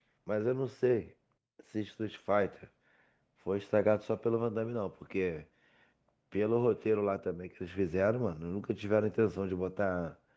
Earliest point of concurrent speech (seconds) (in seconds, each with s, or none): none